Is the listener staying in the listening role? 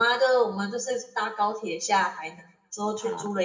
Yes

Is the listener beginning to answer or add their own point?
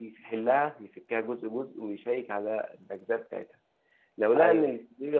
No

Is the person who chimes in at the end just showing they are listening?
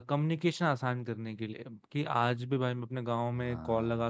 Yes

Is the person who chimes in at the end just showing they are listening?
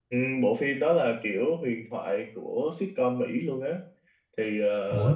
No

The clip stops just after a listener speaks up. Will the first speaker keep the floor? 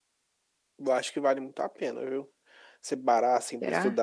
Yes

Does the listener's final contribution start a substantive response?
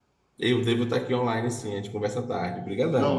Yes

